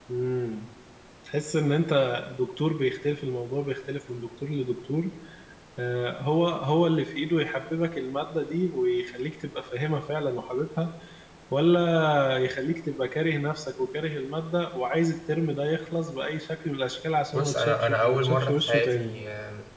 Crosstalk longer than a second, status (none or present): present